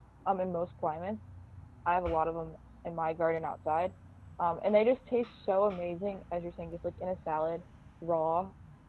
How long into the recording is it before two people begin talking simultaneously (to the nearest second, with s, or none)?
none